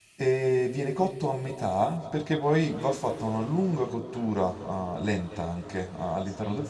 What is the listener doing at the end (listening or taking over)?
taking over